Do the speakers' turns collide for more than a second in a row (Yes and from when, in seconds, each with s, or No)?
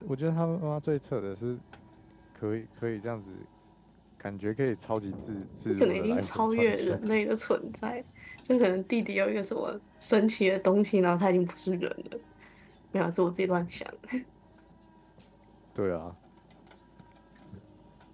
Yes, from 5.7 s